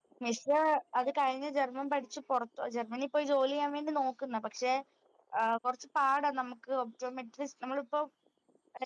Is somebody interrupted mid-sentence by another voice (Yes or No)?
No